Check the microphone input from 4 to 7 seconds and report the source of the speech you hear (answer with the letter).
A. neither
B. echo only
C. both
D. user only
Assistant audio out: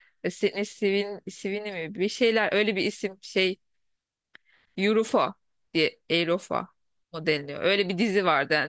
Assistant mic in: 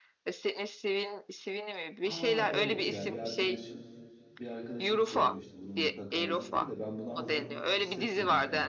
C